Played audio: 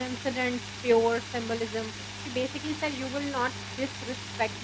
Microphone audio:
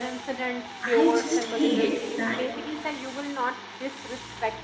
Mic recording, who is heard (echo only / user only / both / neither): both